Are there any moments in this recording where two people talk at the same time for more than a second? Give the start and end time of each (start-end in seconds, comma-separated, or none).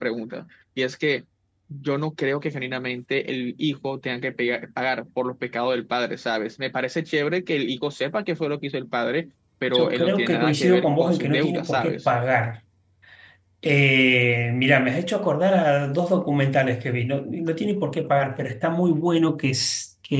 9.7-12.1